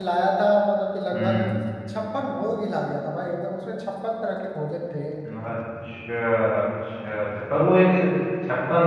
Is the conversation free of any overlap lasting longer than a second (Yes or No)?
Yes